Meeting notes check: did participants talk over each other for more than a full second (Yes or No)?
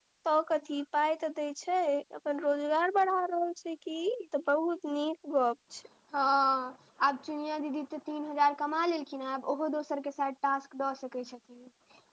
No